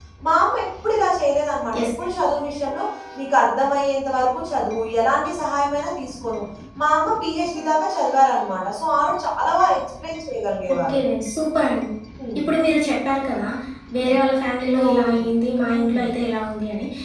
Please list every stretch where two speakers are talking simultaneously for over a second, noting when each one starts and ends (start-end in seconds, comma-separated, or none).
none